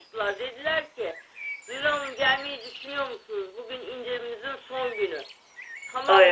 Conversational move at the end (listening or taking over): listening